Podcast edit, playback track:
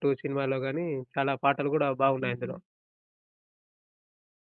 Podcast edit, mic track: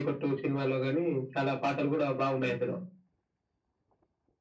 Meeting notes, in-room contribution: none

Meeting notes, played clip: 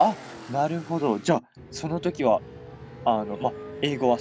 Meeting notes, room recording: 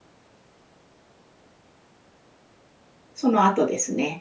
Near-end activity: present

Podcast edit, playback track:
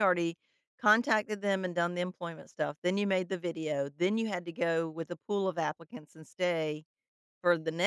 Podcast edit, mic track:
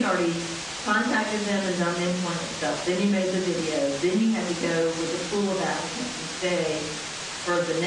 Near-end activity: none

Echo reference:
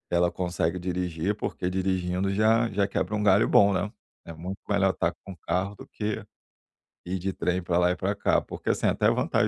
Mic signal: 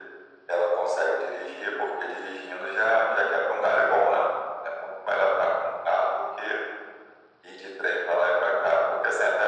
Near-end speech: none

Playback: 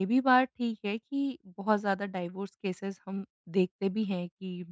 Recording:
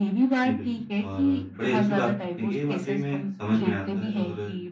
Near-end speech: present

